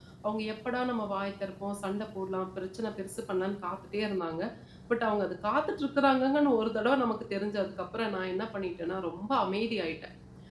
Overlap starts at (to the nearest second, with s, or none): none